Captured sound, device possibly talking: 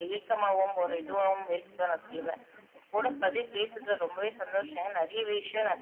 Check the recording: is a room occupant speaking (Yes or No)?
Yes